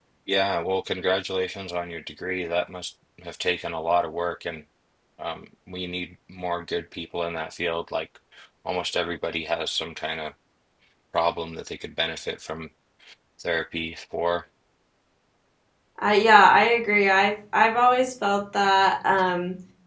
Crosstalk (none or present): none